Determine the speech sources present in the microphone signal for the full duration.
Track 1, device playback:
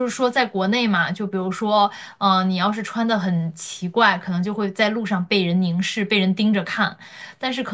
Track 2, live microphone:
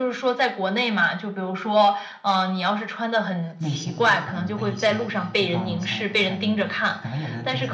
both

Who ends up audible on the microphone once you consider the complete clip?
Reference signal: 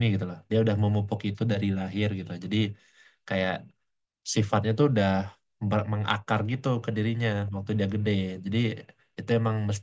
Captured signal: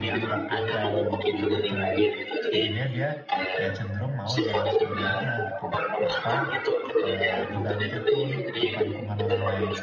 both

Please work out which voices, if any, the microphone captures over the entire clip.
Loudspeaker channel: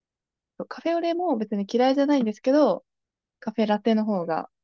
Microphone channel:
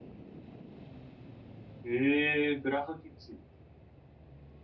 user only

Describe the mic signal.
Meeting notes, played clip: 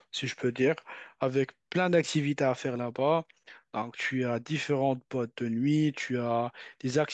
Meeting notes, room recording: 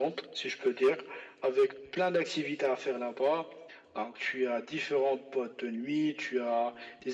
echo only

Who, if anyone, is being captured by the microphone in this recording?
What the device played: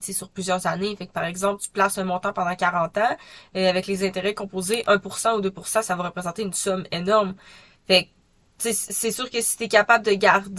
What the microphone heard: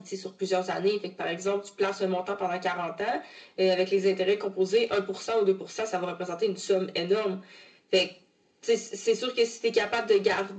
echo only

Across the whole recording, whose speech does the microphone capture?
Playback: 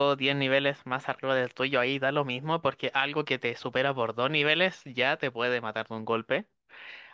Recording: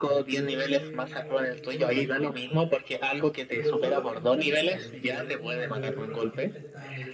both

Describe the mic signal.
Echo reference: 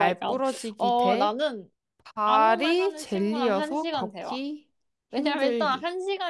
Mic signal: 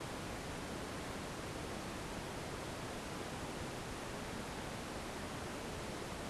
neither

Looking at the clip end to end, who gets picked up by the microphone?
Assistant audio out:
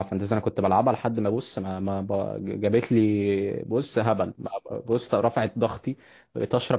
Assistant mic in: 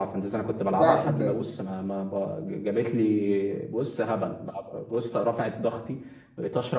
both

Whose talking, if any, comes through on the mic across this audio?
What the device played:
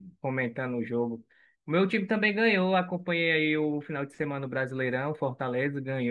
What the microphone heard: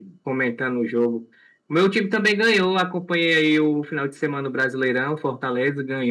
echo only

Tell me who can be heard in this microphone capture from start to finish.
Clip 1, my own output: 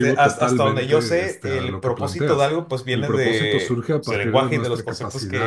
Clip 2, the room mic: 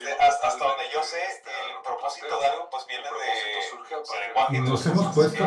both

